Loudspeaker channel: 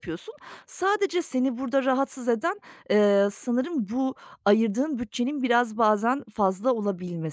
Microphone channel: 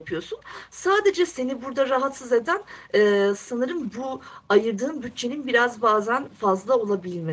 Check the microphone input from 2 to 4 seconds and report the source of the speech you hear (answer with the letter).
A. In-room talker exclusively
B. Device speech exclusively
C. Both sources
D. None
B